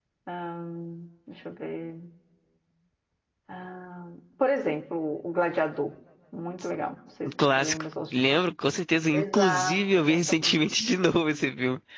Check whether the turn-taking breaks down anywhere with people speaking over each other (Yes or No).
Yes